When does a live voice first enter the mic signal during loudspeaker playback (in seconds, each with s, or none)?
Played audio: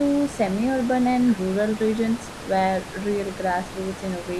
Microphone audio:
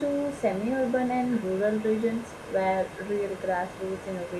none